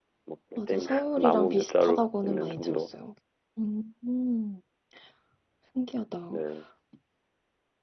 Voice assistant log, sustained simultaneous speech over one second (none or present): present